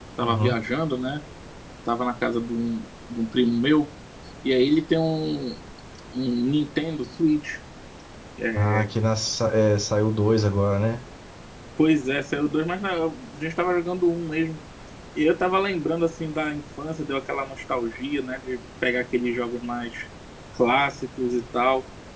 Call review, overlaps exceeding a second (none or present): none